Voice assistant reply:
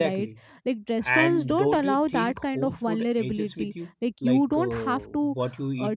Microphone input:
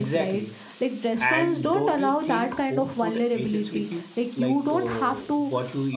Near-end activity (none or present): none